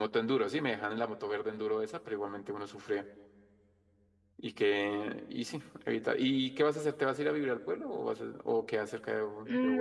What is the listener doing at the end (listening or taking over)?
taking over